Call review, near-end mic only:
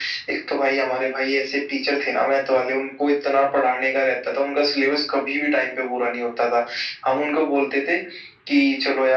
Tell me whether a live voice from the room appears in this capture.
No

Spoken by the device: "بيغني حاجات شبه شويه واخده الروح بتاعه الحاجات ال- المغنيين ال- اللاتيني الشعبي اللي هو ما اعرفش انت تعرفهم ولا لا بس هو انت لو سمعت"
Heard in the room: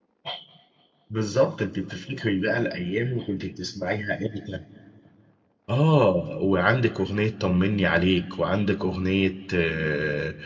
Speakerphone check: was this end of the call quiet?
No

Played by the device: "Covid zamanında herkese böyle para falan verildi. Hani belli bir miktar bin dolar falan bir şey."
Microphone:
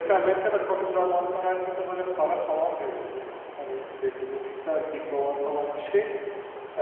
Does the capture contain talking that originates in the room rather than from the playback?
No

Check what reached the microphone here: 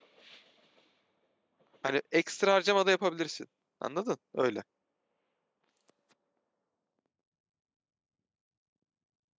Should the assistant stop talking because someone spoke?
Yes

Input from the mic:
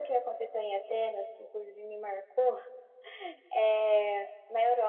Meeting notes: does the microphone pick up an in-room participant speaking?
No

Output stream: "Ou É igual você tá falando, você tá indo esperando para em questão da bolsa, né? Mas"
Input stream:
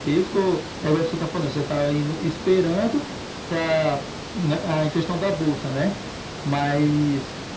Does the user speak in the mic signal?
No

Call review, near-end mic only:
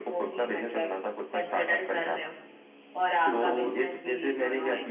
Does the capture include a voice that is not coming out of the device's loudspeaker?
Yes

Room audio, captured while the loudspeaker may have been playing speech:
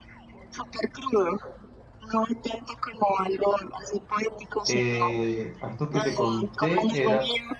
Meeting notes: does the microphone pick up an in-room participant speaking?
Yes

